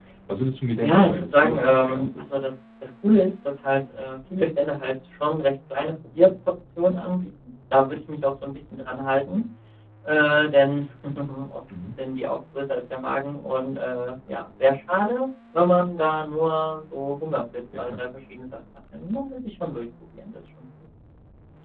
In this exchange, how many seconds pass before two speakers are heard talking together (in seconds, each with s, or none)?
0.8 s